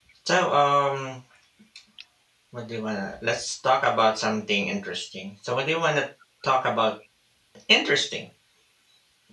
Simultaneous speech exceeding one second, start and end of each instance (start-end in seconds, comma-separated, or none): none